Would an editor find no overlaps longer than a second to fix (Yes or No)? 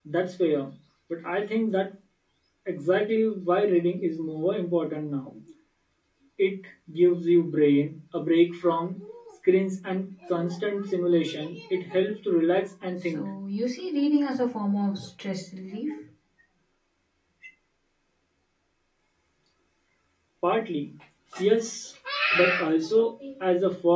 Yes